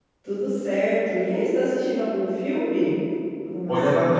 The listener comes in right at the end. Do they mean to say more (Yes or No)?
Yes